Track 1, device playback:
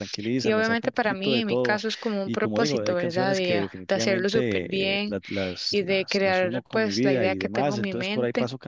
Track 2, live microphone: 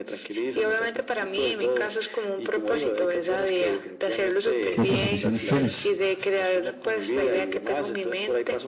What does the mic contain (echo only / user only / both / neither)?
both